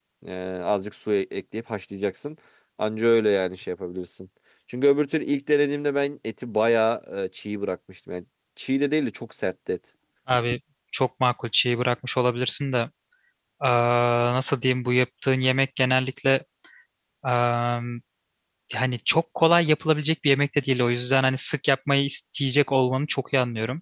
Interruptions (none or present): none